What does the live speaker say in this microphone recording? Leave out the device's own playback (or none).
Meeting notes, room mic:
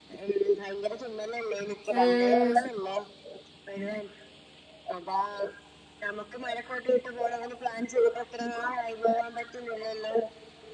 ഉം